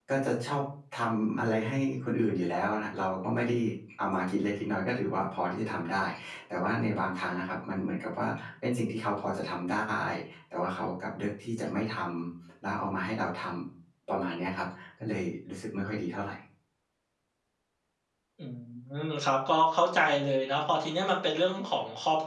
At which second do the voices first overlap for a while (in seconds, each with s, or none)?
none